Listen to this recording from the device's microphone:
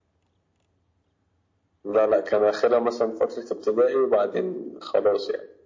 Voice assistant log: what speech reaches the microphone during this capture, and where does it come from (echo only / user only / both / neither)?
echo only